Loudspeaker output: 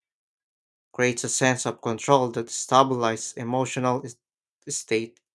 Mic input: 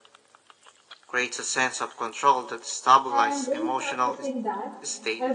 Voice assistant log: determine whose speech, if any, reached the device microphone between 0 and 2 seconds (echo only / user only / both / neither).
echo only